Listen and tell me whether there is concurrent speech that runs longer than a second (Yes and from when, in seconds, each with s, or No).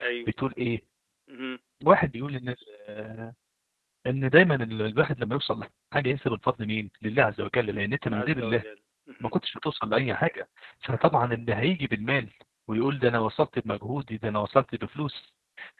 No